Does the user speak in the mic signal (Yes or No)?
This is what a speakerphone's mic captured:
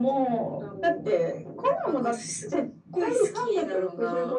No